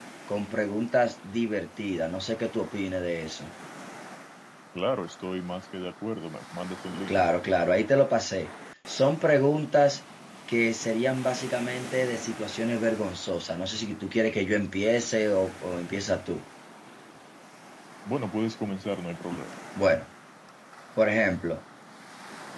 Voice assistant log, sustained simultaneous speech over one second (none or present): none